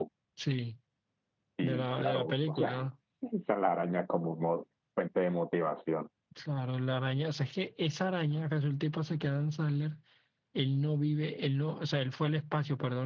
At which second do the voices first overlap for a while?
2 s

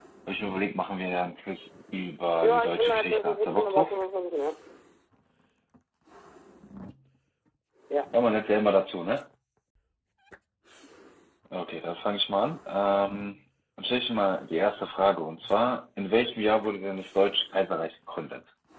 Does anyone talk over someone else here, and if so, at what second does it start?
2 s

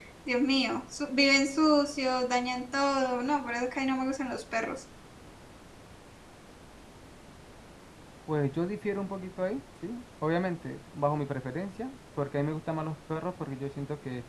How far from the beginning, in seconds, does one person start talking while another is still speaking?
none

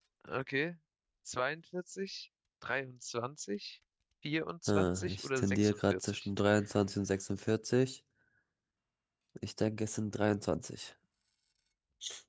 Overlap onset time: 5 s

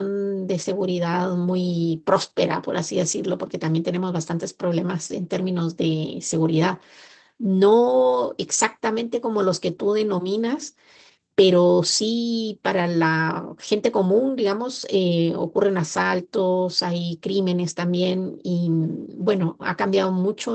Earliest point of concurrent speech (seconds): none

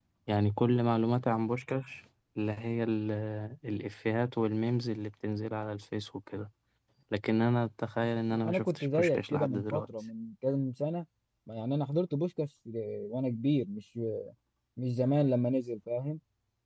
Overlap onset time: 8 s

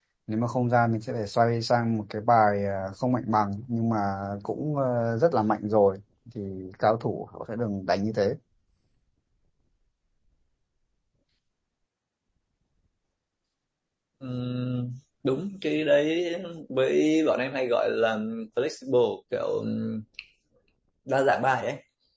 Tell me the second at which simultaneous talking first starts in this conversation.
none

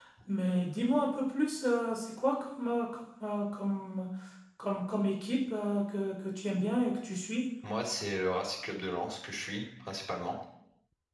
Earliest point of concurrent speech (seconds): none

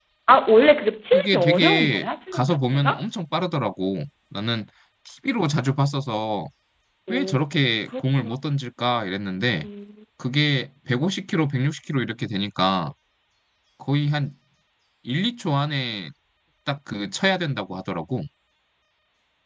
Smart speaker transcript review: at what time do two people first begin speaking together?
1 s

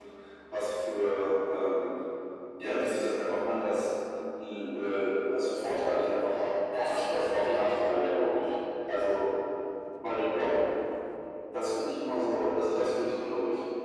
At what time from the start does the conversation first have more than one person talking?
7 s

